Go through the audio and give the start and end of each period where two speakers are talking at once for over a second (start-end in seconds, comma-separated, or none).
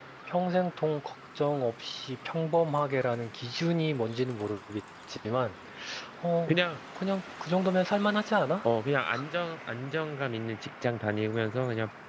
none